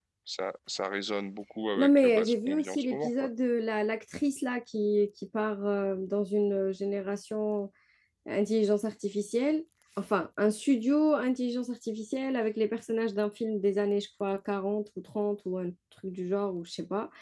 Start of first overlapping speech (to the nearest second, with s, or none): 2 s